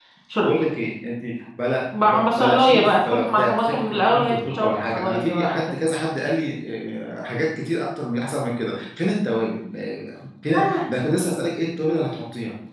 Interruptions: present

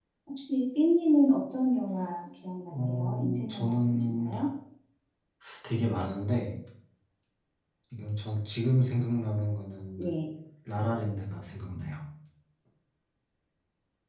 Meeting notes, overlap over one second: present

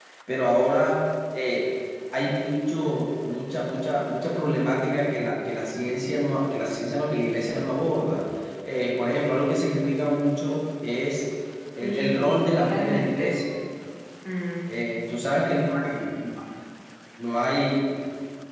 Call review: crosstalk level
present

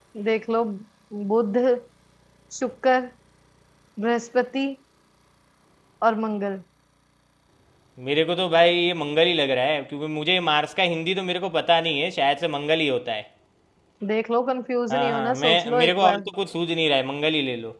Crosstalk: present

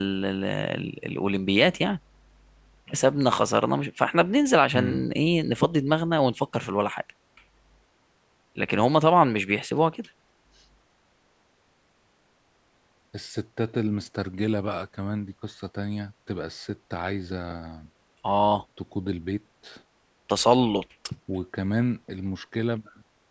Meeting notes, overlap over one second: none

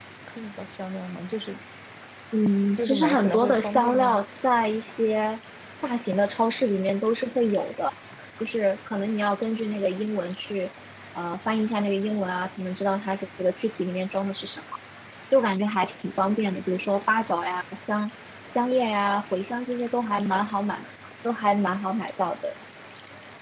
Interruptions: present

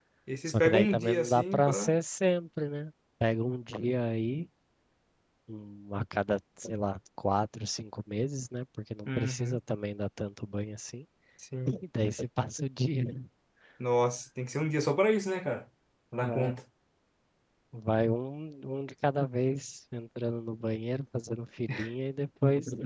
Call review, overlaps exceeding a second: present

